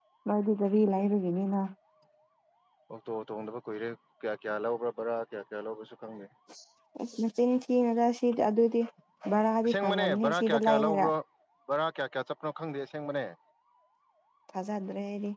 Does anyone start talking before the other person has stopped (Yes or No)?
Yes